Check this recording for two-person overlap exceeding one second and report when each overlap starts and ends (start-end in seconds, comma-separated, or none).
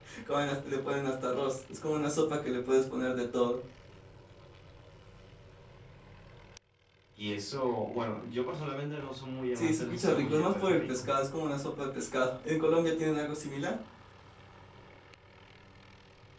9.6-11.1